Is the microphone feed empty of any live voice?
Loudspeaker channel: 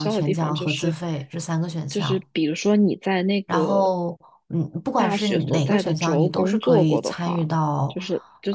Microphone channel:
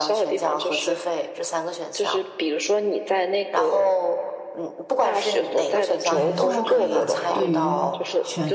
No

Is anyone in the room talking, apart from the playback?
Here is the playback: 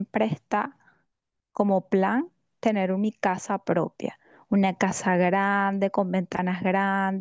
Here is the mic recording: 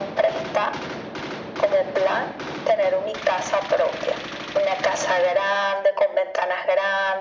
No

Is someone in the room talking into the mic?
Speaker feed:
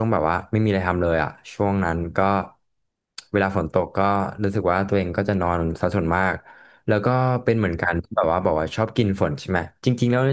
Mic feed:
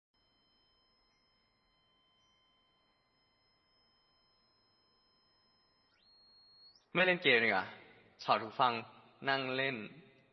Yes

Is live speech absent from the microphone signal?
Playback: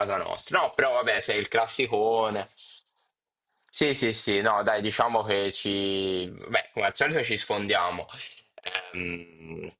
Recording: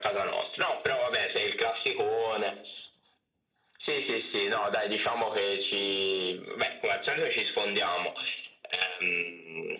Yes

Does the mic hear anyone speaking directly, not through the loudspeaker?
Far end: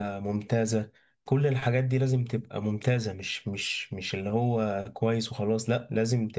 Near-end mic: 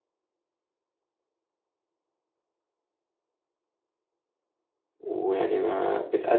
Yes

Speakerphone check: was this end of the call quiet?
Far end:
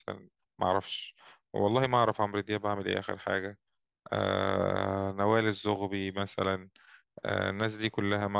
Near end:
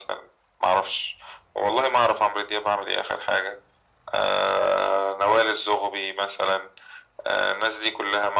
Yes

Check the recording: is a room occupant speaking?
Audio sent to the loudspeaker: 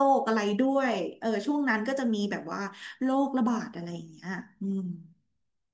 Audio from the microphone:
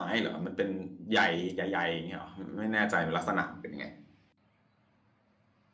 Yes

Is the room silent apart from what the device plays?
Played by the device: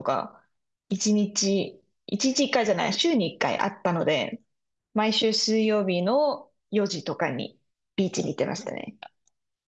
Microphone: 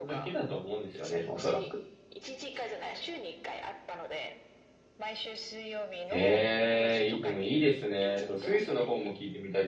No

